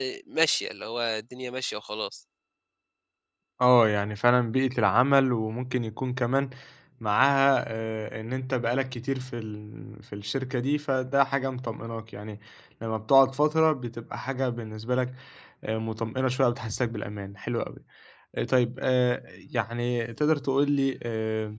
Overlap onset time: none

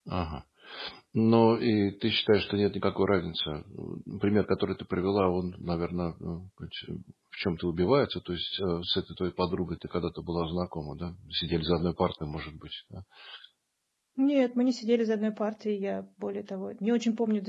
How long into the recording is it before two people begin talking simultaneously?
none

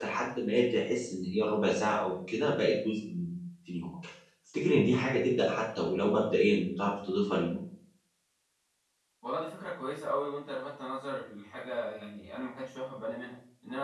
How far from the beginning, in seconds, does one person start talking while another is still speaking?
none

